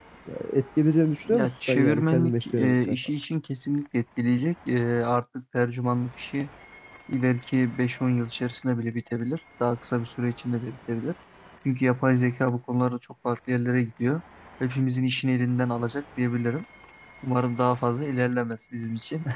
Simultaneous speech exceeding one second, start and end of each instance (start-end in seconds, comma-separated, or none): 1.3-3.0